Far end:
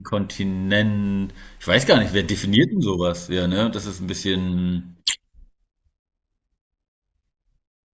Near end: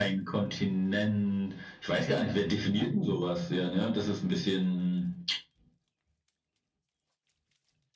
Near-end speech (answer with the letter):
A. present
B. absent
B